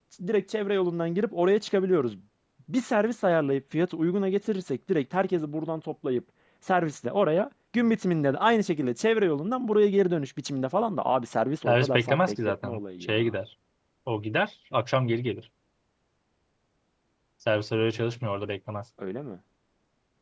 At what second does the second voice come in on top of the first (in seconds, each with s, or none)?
11.6 s